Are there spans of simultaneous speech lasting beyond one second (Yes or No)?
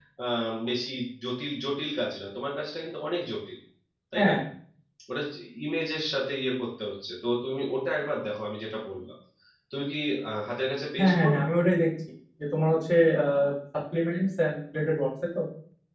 No